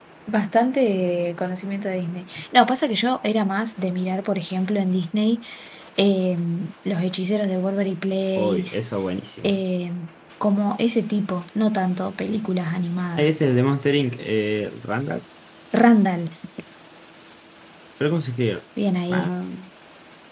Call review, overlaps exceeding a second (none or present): none